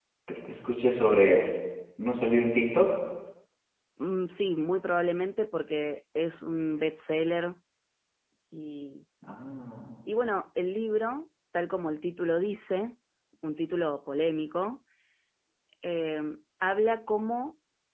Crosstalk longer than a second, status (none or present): none